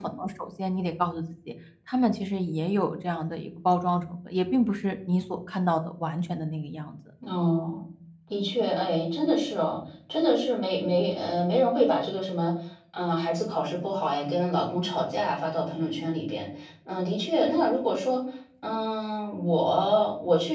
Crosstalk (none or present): none